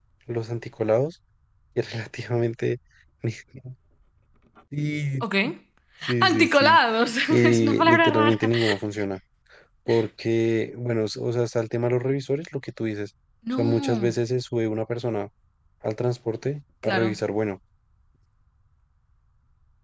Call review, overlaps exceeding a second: present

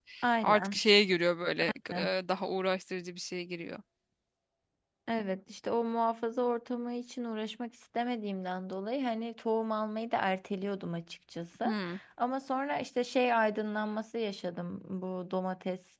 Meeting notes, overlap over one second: none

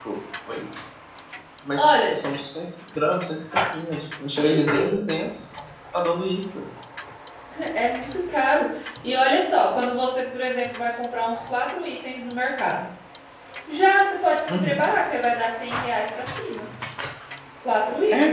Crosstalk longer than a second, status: none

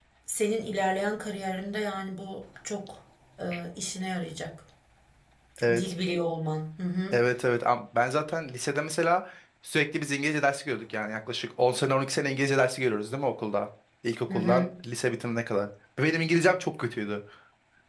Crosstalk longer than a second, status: none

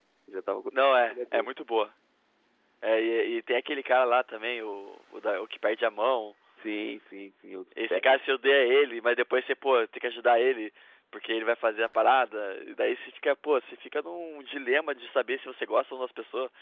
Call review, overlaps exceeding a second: none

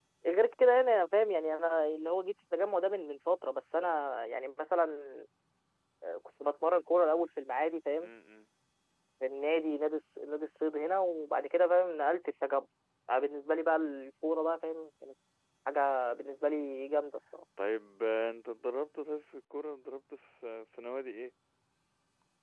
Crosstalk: none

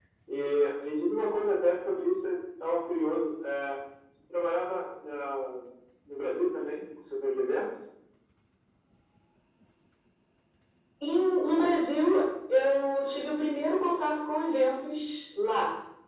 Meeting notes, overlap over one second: none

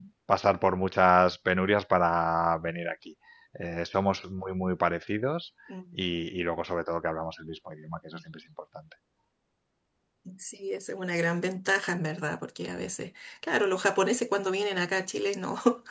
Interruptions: none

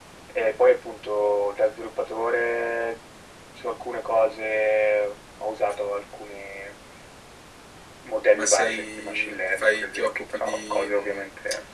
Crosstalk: present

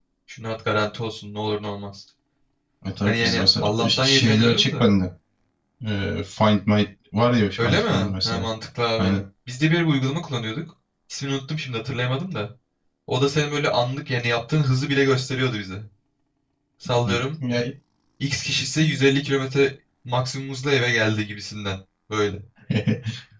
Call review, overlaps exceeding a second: present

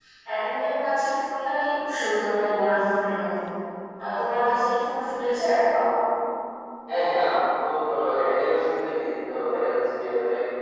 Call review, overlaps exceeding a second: none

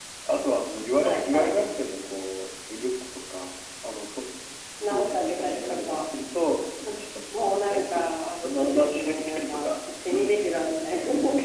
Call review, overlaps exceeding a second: present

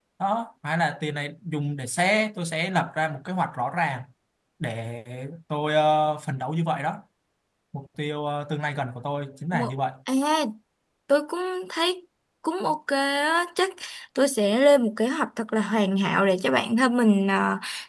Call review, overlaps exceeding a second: none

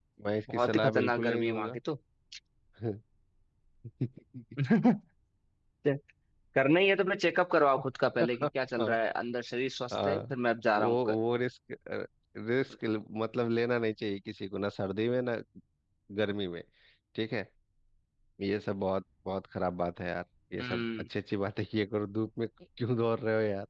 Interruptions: present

